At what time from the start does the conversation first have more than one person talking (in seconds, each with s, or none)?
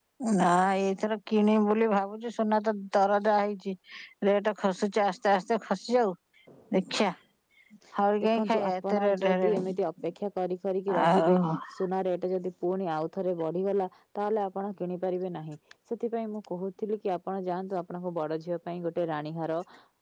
8.2 s